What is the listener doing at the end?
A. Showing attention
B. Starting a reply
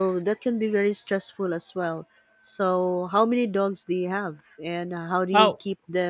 A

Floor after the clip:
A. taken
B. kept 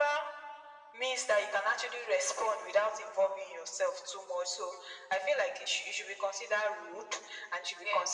B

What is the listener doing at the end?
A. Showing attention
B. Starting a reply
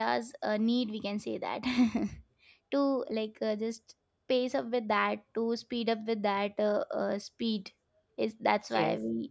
A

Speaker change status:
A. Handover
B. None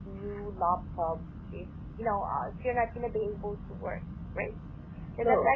B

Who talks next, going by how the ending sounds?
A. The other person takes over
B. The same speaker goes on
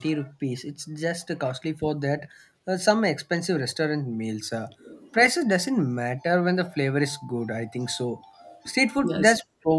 B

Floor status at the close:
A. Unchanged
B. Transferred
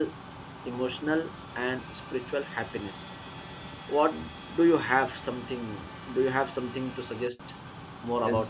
B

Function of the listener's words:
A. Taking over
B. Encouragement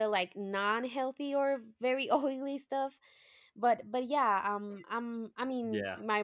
B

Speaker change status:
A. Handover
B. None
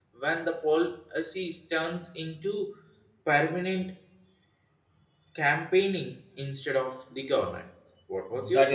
A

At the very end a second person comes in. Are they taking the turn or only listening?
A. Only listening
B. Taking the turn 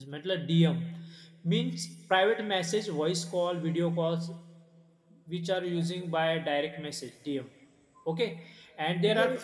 A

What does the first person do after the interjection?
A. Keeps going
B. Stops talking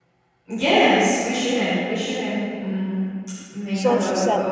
B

